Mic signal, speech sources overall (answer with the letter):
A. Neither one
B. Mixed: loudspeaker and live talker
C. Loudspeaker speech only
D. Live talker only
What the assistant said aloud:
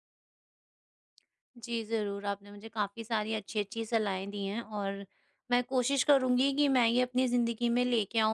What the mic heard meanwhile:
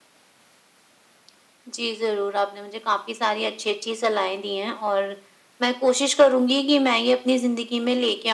C